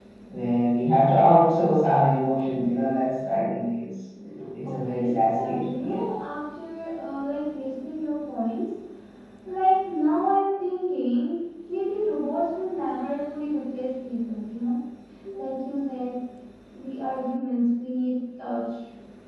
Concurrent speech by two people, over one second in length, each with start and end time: 4.6-6.0

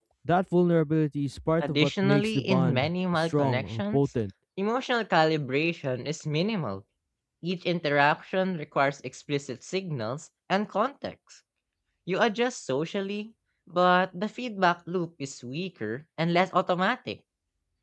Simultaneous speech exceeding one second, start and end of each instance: 1.6-4.0

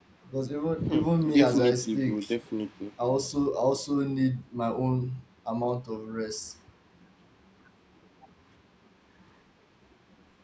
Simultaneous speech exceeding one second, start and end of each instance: 0.8-2.3

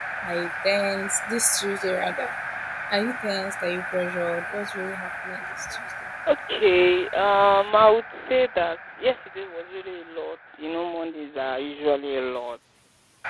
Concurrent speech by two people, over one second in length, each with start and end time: none

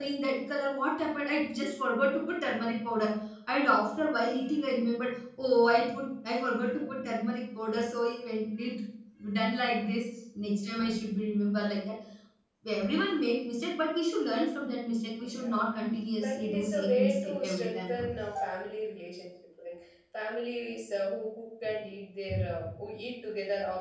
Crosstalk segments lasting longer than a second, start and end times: 16.2-18.1

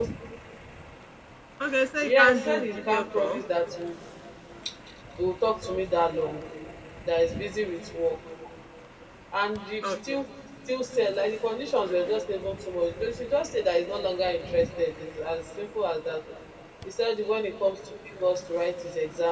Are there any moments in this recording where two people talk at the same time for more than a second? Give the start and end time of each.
2.0-3.4

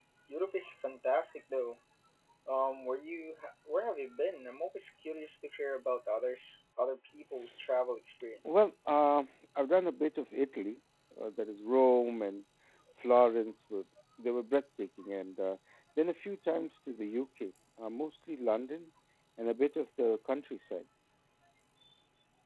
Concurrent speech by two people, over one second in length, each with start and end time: none

